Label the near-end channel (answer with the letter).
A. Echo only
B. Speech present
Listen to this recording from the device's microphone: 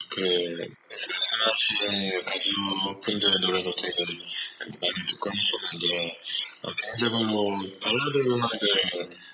A